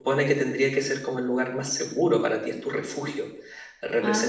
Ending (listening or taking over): listening